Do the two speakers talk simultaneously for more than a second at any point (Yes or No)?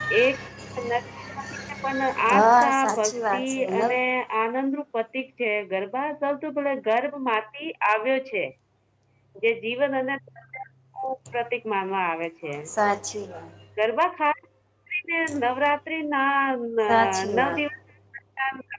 Yes